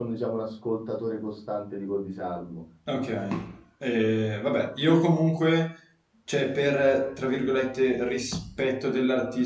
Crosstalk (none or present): none